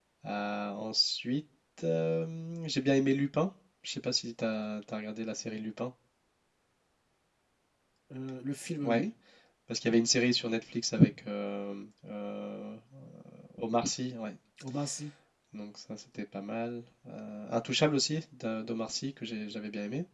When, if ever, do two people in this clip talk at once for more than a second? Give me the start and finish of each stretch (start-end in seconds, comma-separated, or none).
none